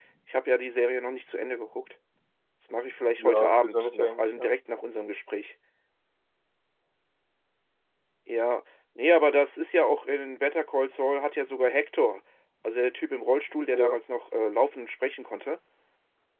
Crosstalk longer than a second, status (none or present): present